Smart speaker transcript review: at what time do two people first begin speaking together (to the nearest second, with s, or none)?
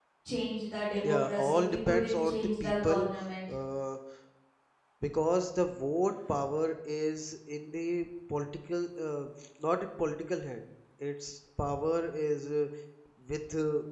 1 s